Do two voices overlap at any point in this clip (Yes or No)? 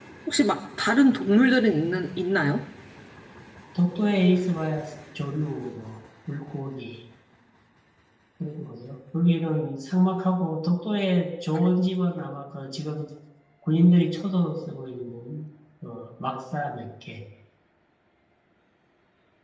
No